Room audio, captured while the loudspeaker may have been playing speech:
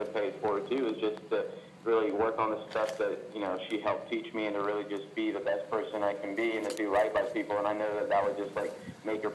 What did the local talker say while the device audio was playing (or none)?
none